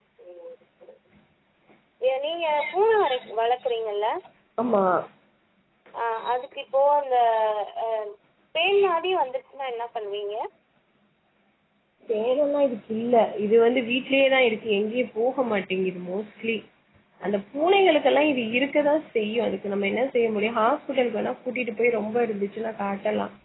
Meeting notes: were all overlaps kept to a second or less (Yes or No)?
Yes